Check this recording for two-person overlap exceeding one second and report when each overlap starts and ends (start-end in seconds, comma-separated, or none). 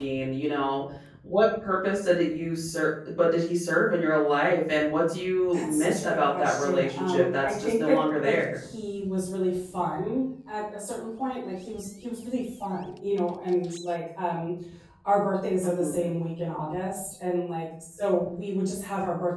5.5-8.6